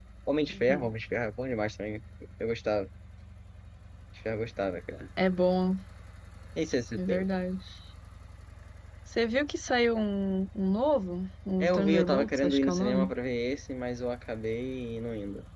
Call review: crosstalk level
present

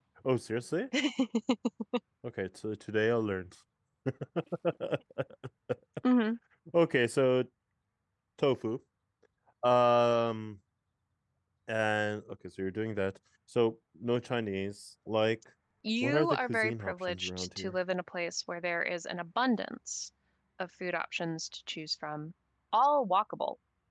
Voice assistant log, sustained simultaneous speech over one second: present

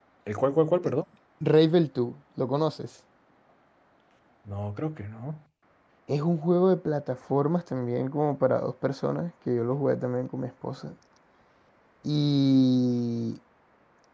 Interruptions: none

